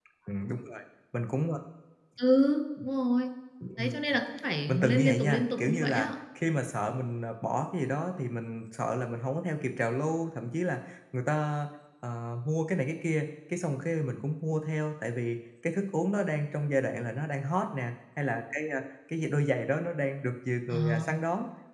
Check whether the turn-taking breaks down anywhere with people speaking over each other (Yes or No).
Yes